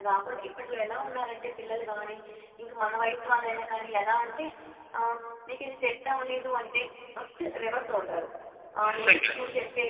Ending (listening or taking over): listening